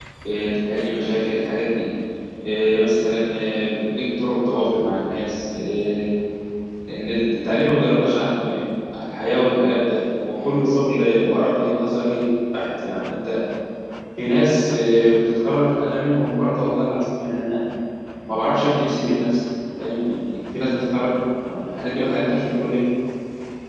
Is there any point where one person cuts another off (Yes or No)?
No